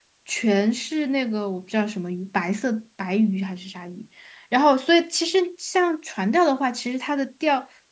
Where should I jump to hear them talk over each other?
none

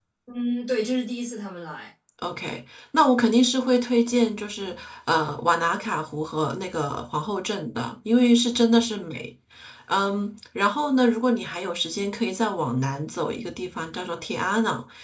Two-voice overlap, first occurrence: none

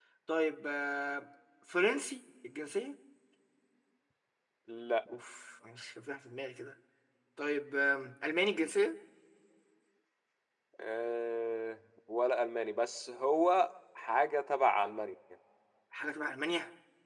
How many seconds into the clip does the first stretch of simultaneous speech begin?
none

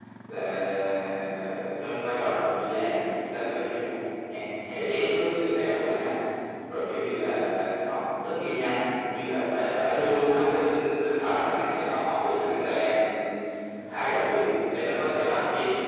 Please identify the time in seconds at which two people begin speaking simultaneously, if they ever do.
none

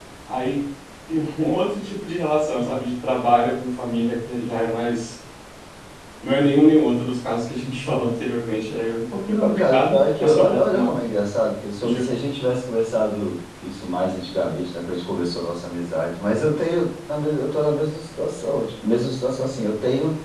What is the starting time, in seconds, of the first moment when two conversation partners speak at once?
9.3 s

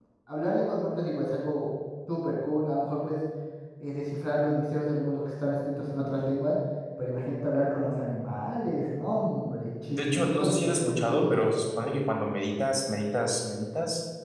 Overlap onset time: 9.9 s

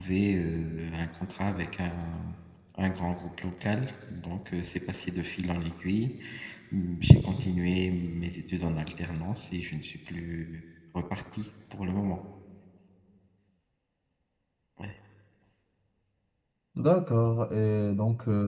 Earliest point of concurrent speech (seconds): none

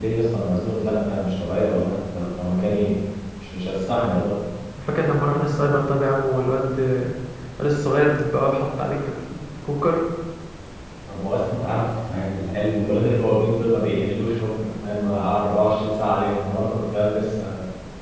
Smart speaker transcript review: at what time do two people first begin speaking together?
none

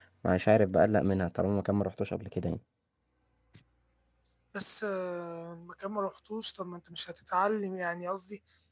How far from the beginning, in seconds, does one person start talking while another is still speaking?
none

